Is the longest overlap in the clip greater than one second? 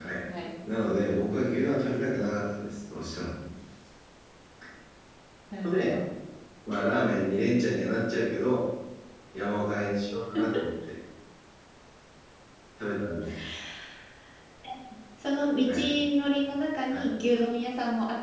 No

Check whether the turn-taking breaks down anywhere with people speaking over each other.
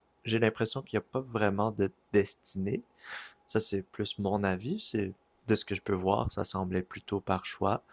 No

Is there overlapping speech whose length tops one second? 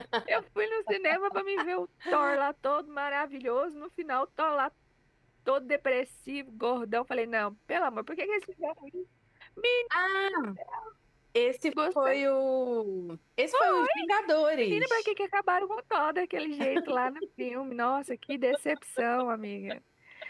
No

